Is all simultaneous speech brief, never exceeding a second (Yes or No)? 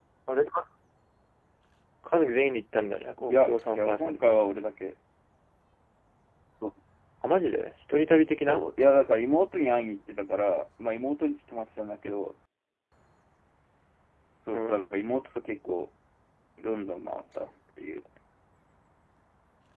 No